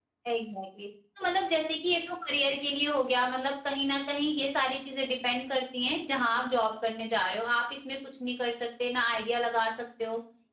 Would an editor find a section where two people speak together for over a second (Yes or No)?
No